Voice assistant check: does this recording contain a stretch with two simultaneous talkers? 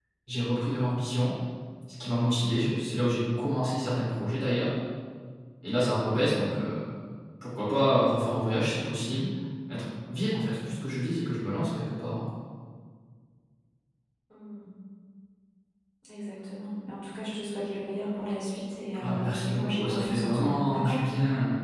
Yes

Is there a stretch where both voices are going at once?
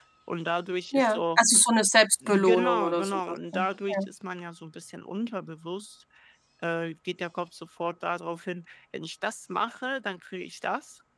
Yes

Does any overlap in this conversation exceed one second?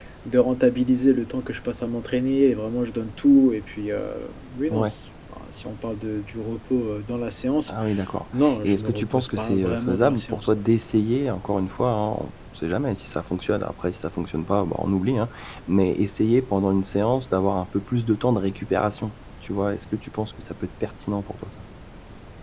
Yes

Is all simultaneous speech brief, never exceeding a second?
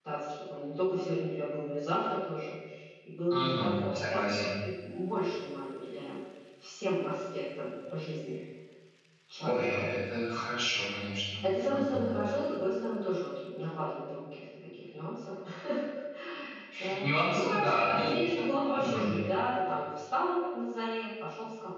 No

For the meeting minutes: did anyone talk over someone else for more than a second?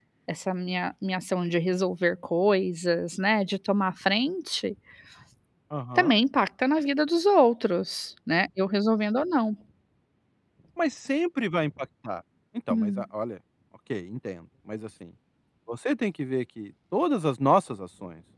No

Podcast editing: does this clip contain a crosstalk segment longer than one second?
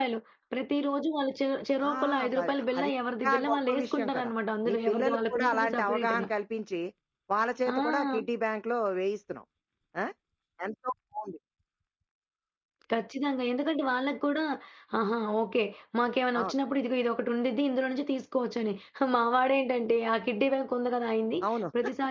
Yes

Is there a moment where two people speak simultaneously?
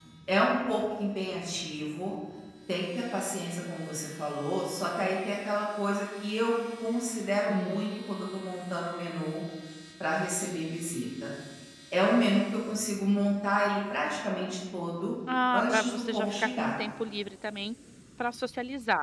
Yes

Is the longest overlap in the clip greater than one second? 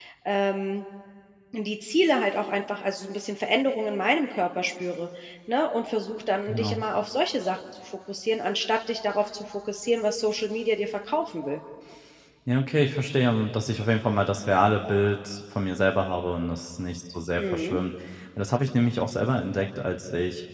No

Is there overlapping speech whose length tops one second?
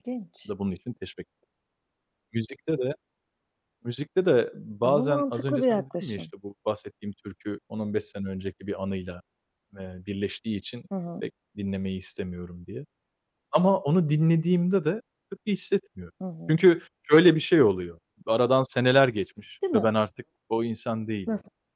Yes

